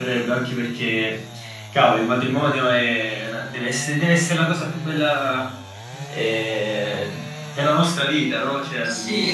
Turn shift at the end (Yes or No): Yes